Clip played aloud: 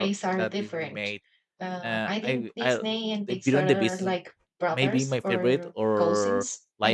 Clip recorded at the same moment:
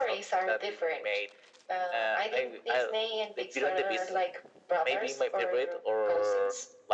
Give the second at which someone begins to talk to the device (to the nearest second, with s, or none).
none